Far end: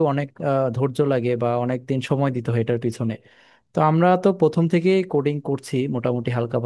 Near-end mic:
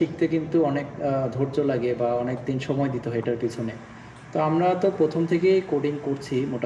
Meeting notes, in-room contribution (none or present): none